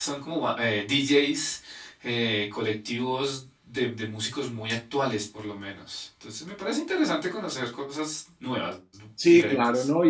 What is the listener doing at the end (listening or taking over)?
taking over